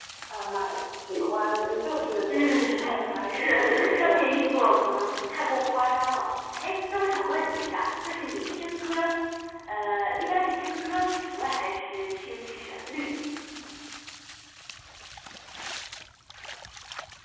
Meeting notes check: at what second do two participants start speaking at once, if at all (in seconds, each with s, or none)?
2.3 s